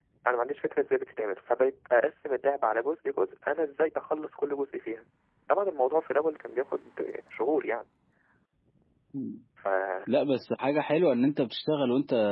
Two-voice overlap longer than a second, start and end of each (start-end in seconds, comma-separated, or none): none